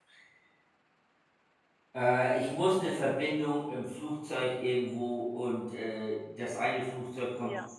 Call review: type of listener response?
listening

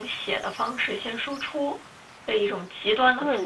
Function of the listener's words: taking over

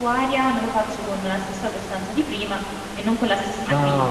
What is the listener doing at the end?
taking over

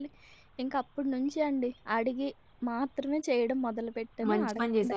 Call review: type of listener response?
taking over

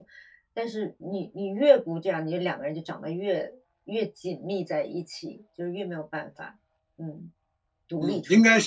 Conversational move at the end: taking over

